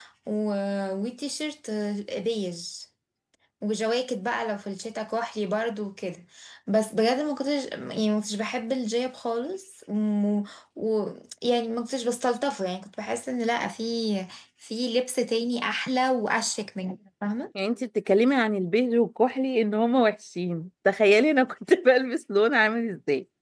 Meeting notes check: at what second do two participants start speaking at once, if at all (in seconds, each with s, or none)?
none